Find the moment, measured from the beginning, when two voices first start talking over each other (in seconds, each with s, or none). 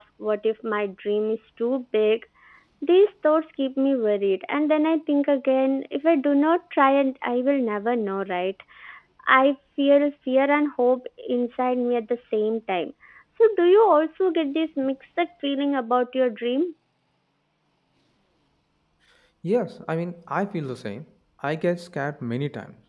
none